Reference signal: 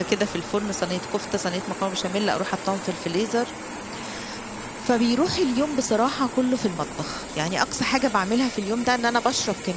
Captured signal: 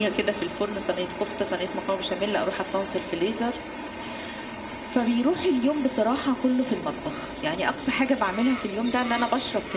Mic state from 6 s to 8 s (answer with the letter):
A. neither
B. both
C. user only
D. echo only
D